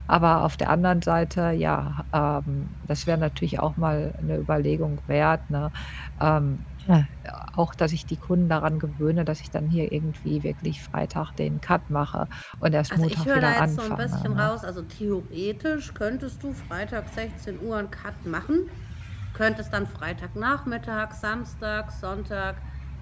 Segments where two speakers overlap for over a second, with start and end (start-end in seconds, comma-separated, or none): 12.9-14.5